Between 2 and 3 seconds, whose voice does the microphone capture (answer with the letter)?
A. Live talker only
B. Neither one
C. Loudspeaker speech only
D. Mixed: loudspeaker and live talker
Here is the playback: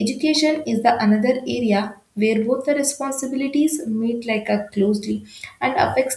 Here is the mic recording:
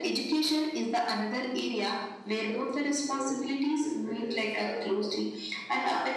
D